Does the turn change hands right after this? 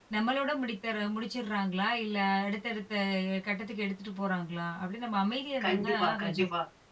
Yes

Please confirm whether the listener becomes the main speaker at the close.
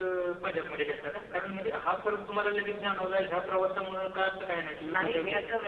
Yes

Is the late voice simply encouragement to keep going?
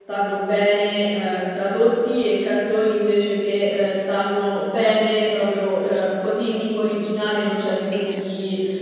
Yes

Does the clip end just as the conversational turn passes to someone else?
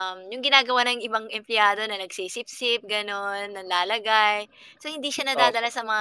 No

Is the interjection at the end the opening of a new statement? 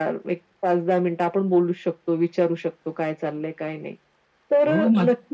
Yes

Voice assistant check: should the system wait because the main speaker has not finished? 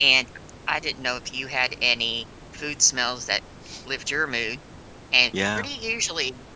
Yes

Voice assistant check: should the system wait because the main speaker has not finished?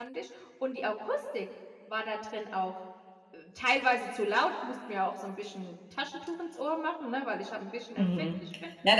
No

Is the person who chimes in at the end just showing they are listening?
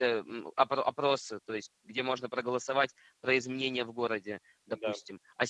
Yes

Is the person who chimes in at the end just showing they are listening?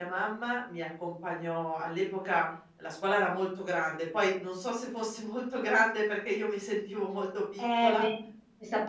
No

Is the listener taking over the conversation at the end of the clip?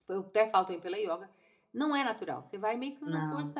No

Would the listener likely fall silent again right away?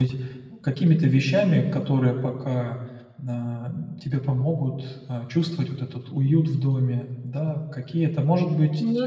Yes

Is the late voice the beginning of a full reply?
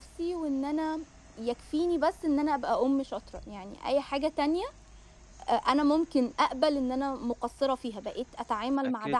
Yes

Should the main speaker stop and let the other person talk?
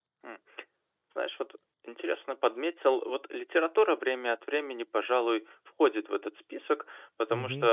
Yes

